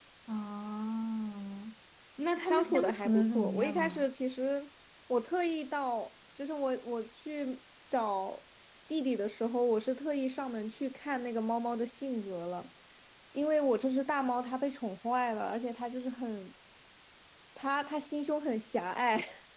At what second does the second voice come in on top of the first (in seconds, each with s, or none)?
2.5 s